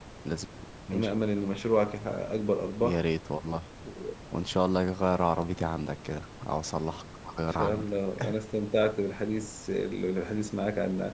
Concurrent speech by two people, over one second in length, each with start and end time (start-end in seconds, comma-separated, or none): none